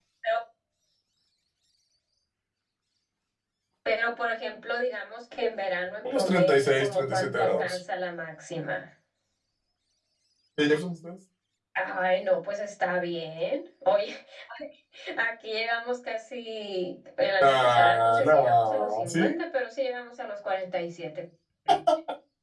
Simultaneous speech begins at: 6.1 s

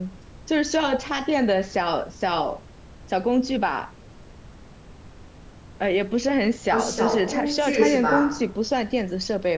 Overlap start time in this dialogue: 6.7 s

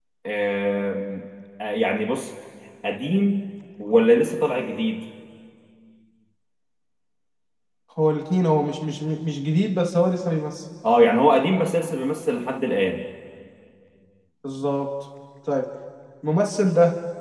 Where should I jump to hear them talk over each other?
none

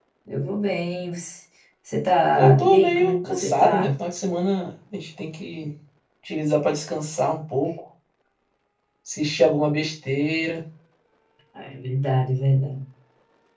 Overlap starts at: 2.3 s

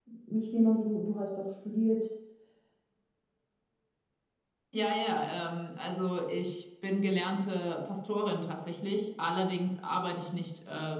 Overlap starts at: none

